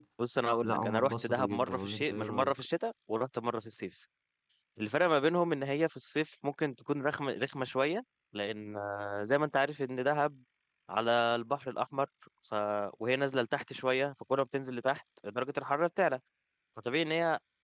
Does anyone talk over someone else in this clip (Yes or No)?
Yes